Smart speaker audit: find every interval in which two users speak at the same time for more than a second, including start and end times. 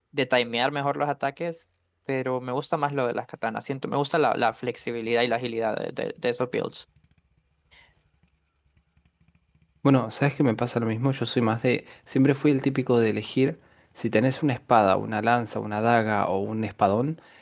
none

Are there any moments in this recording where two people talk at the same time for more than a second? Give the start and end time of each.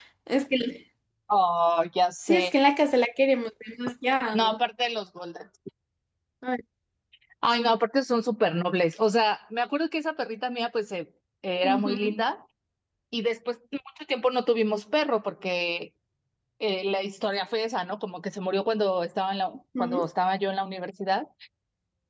none

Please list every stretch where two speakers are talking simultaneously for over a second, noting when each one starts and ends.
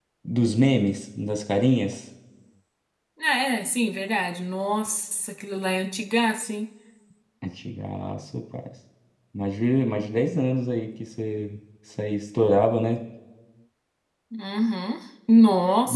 none

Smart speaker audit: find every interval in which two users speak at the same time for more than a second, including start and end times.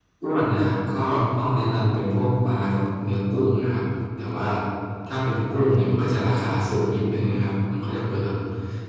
none

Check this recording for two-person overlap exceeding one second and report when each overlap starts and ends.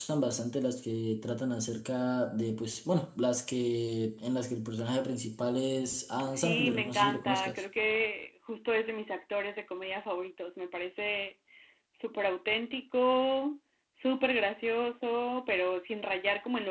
6.3-7.6

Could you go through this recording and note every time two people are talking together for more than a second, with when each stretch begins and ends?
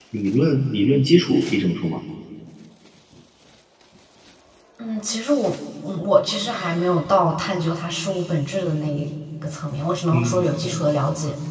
none

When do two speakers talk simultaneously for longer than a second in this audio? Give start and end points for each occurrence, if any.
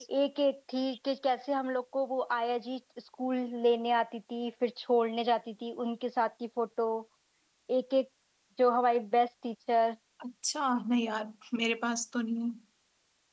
none

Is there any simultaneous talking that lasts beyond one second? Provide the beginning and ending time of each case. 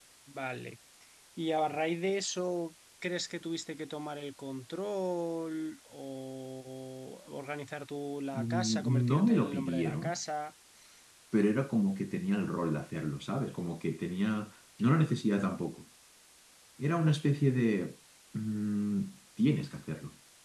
8.3-10.2

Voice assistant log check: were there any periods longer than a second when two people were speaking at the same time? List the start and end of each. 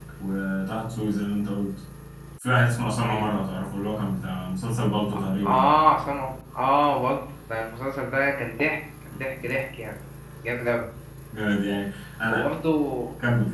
none

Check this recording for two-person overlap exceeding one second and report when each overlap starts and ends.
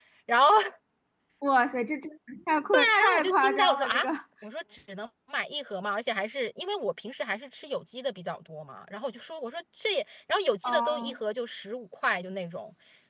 2.8-4.0

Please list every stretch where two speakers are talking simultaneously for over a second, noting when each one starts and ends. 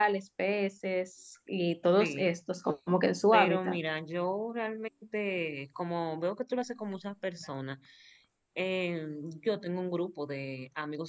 none

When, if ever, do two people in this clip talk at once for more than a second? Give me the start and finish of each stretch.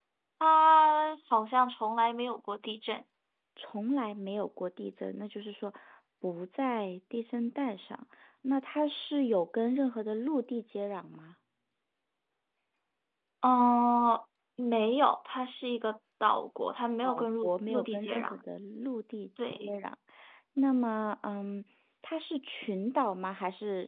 17.0-18.3

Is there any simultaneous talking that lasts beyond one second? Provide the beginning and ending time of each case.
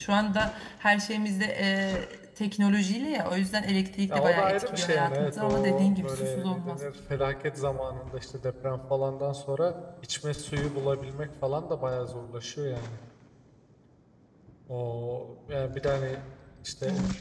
4.1-6.8

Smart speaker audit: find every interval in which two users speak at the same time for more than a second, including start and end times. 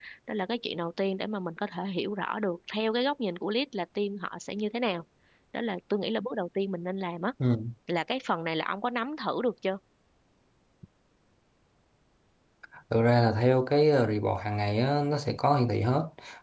none

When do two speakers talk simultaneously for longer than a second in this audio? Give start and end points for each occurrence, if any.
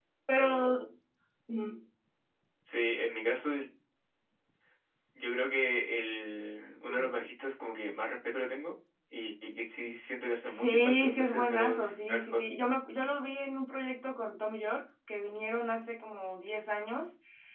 10.5-12.5

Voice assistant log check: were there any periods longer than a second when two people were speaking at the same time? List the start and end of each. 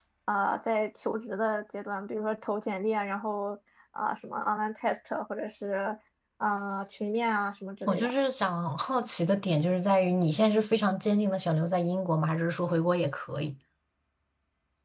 none

